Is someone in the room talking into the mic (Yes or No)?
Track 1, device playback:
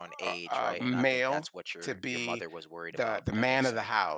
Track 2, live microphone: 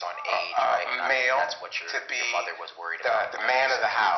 No